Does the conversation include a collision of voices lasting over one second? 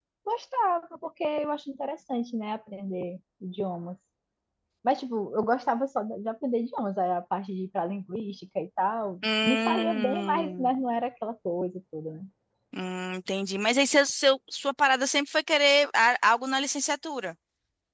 Yes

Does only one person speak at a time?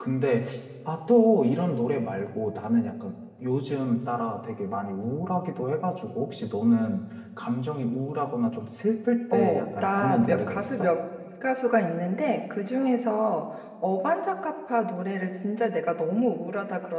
No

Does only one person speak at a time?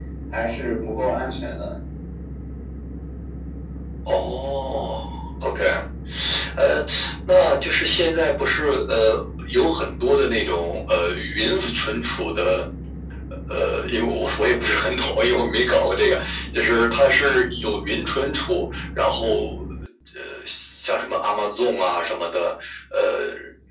Yes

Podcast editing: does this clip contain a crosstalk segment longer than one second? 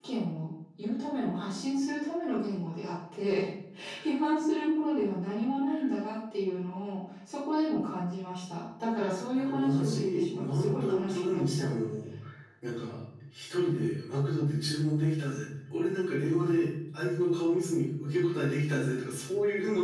Yes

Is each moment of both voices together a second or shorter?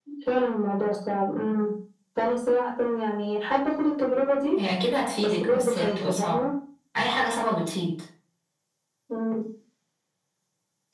No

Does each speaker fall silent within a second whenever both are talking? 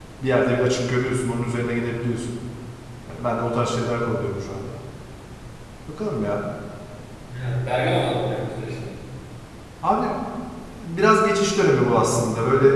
Yes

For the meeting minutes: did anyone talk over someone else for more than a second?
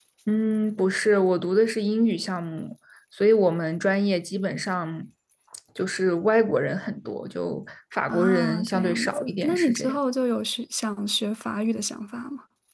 Yes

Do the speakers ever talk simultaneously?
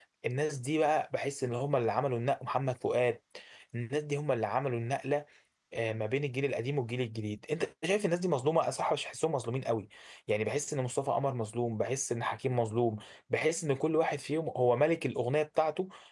No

